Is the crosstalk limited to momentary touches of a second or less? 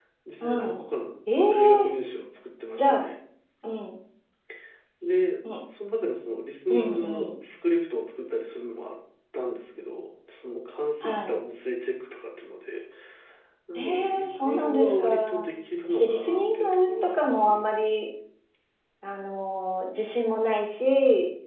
No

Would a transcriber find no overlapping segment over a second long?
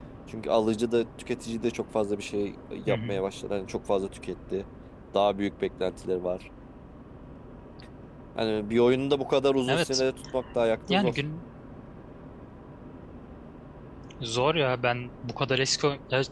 Yes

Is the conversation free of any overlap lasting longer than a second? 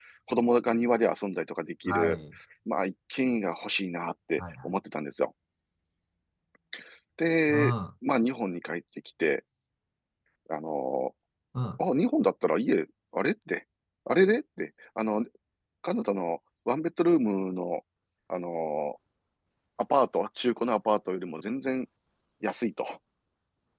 Yes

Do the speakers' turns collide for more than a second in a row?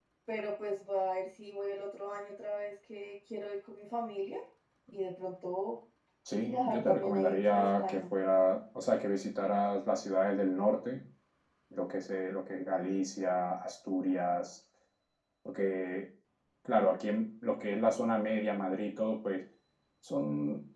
Yes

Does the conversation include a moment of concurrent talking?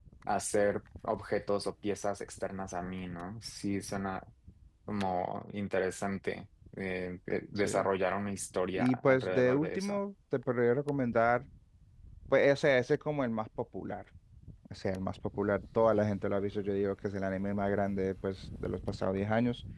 Yes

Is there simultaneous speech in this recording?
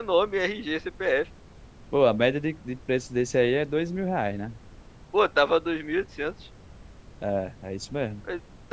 No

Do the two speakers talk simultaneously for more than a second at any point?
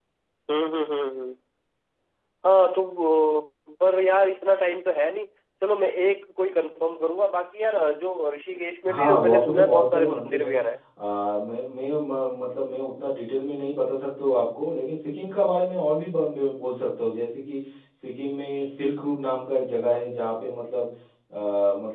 Yes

